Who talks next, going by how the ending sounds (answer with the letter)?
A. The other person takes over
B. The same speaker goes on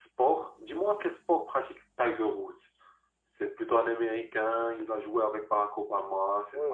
A